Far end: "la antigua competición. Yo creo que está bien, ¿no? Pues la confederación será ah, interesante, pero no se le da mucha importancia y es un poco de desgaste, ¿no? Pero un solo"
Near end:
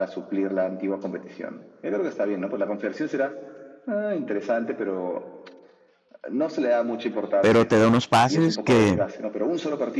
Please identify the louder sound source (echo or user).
user